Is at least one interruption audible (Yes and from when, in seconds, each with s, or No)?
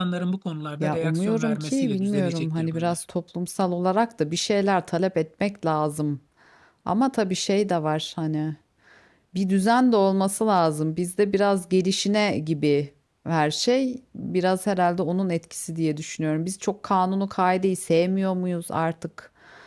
Yes, from 0.8 s